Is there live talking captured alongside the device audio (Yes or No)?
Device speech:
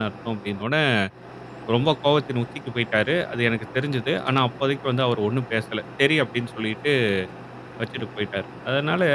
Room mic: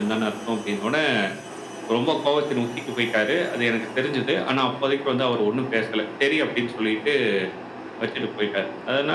No